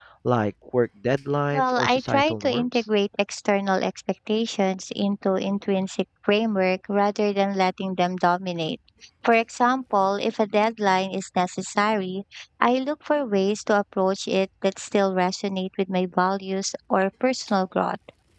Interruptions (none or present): present